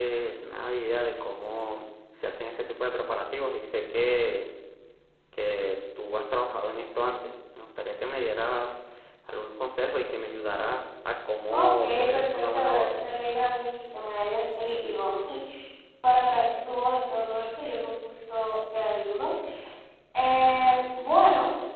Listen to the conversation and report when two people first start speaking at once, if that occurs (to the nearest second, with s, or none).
12 s